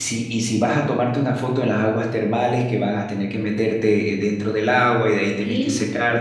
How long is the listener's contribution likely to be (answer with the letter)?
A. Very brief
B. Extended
A